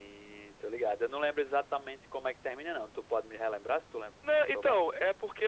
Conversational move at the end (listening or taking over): taking over